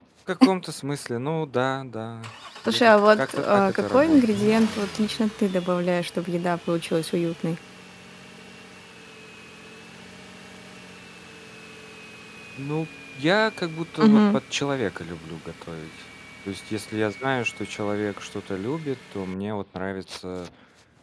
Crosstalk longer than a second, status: present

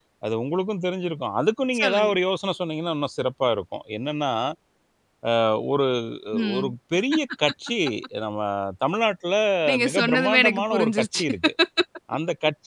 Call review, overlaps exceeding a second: present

